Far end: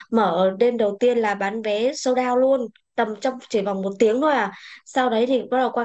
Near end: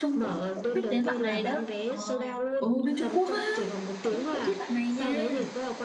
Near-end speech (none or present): present